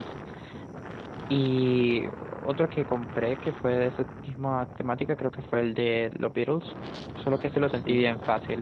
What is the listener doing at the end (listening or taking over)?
listening